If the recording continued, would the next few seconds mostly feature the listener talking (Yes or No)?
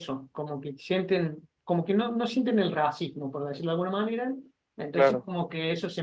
No